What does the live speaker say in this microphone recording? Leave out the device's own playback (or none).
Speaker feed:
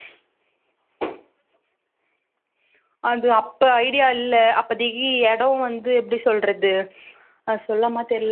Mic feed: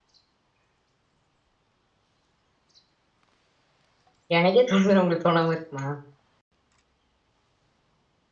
எனக்கே தோணுது உங்களுக்கு தோணாம இருக்குமா